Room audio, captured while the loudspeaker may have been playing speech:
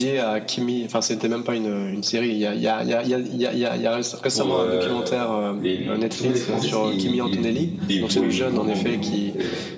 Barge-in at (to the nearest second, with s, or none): 4 s